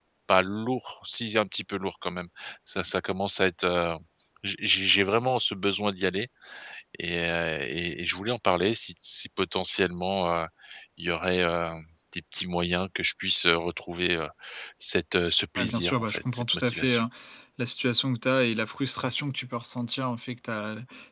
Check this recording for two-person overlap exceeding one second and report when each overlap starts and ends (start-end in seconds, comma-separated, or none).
15.6-17.1